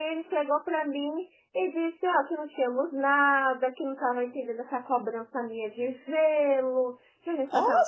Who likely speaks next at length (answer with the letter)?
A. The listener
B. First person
B